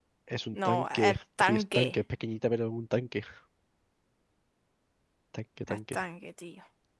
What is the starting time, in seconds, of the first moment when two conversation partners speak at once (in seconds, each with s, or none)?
0.6 s